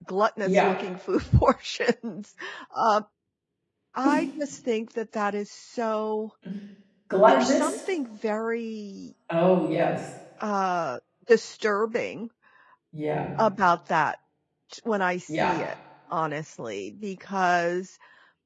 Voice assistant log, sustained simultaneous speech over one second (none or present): none